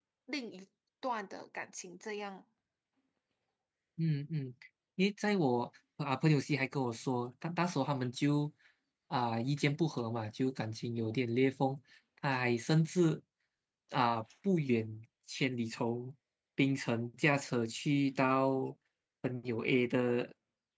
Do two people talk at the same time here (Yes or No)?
No